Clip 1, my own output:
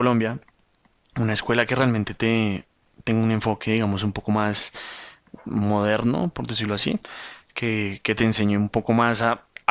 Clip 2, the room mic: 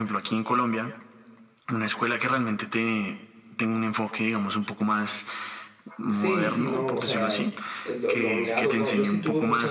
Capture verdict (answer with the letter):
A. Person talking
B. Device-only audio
A